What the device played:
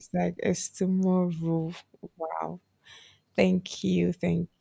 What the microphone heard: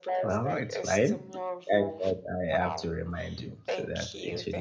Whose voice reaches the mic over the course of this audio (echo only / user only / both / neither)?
both